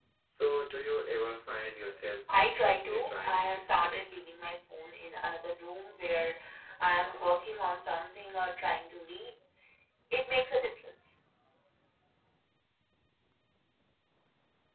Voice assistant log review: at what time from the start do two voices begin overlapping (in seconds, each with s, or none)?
2.3 s